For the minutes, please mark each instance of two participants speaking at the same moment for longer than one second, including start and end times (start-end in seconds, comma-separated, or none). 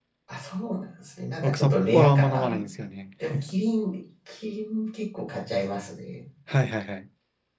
1.4-2.6